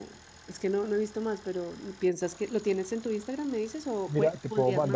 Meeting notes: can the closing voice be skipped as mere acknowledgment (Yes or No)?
No